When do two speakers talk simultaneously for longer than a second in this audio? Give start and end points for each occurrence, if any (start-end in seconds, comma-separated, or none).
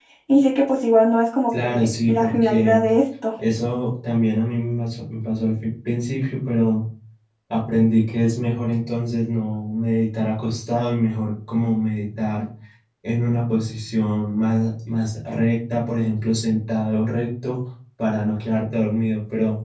1.6-2.8